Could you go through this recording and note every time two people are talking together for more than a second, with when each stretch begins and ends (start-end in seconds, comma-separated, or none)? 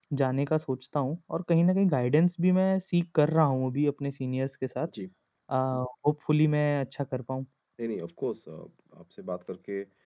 none